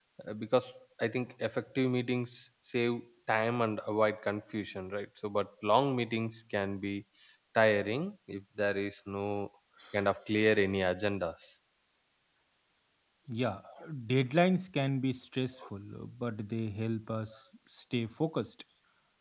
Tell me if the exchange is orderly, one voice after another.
Yes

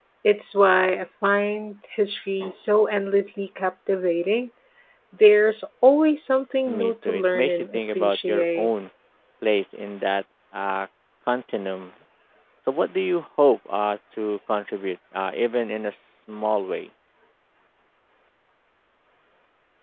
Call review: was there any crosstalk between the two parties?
Yes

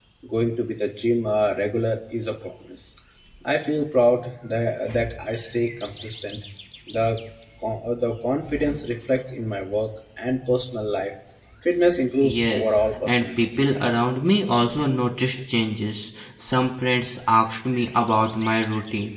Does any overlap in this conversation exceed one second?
Yes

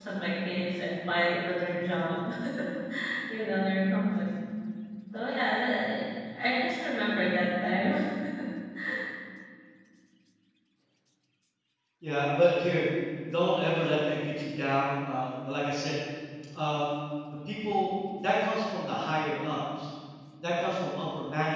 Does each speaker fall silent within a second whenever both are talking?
Yes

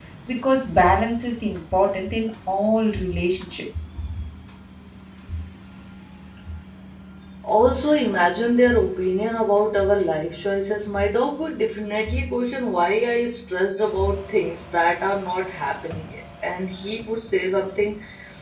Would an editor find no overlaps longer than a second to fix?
Yes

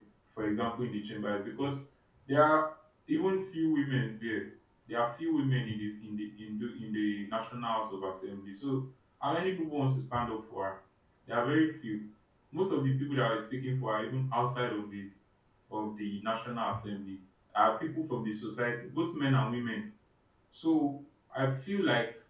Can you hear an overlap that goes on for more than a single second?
No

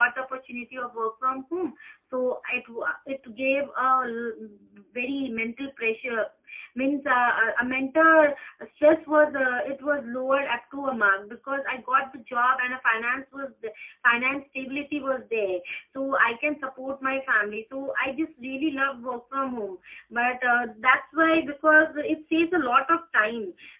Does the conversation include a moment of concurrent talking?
No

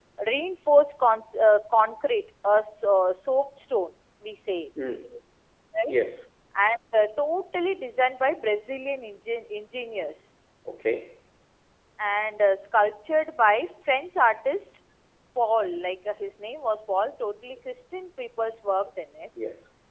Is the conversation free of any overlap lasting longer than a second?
Yes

